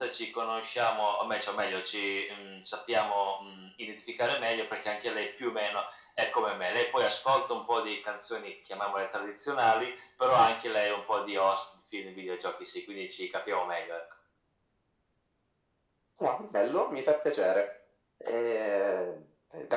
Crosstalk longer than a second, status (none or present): none